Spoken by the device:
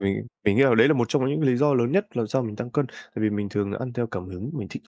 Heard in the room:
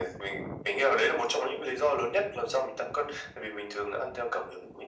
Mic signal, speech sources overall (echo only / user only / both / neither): echo only